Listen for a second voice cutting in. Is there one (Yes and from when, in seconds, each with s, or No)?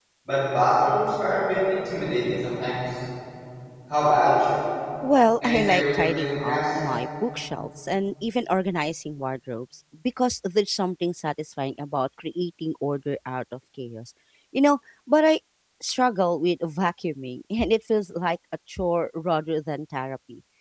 Yes, from 5.4 s